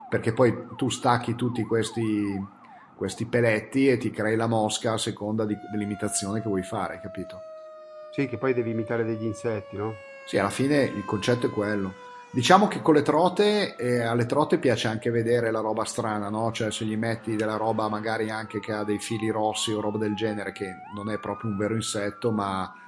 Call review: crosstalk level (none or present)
none